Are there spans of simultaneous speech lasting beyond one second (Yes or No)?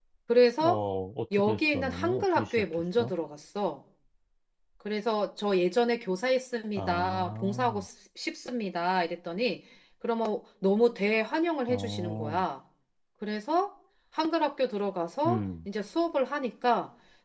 Yes